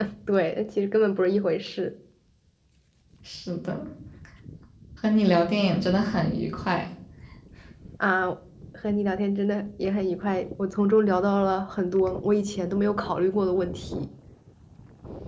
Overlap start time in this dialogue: none

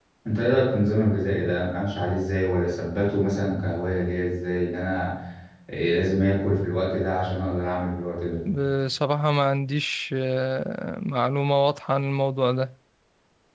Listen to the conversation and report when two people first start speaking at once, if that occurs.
none

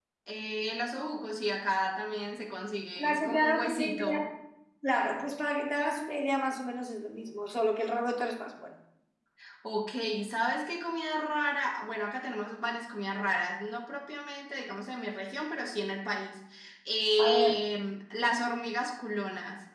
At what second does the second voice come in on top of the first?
3.0 s

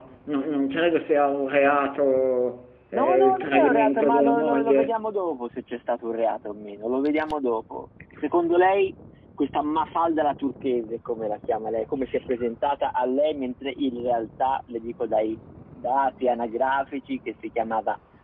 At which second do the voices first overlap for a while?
2.9 s

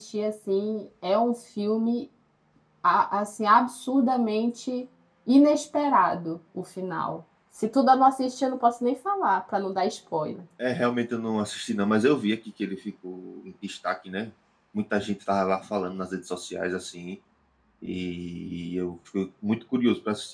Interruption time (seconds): none

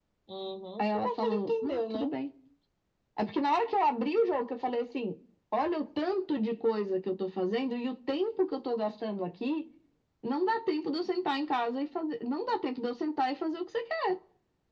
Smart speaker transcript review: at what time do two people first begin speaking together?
0.8 s

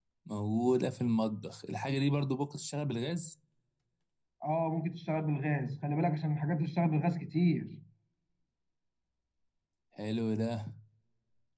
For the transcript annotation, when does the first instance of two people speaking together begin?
none

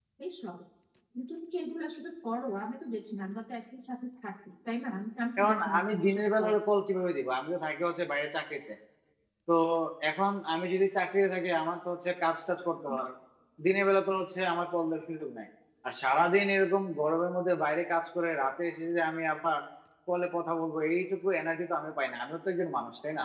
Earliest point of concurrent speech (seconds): 5.4 s

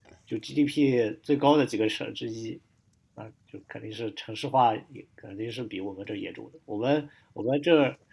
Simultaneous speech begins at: none

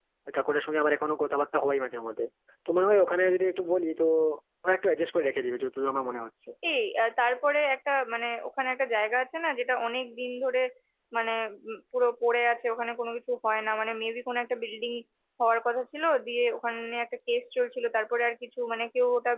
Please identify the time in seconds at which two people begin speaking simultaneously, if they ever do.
none

